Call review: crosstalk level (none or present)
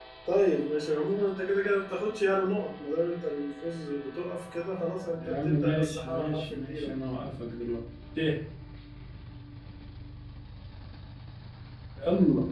present